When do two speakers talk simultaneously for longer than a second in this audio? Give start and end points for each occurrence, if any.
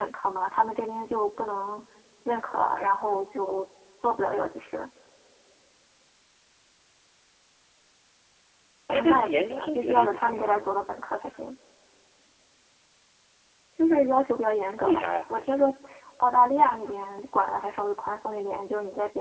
8.9-10.8

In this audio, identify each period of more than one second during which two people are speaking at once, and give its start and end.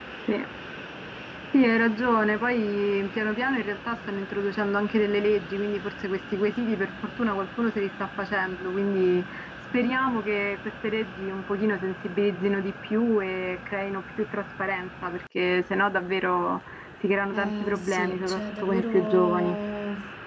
17.3-19.5

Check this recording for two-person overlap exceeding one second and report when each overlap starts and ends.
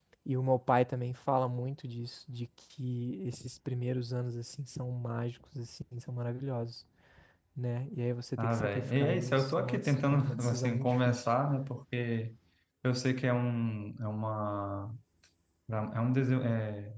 8.4-11.2

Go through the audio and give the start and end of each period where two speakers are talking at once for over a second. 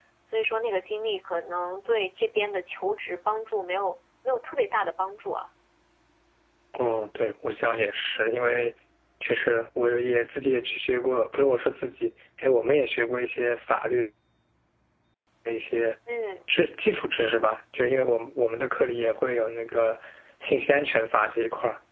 none

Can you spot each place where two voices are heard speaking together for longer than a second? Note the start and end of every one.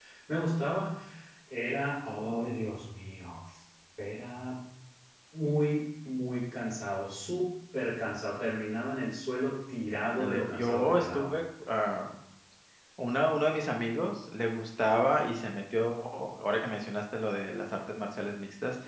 10.0-11.3

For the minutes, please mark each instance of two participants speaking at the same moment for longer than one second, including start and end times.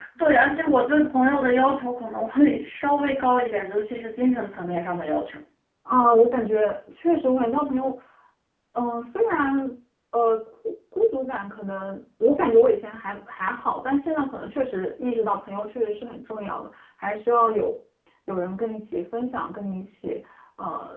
none

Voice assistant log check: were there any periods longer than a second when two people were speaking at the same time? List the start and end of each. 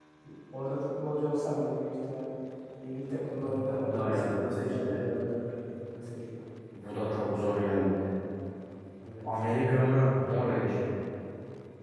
3.3-5.0

